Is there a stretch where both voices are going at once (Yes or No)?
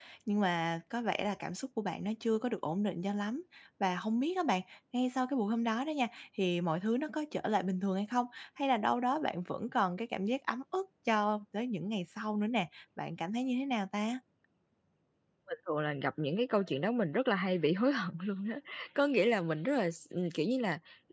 No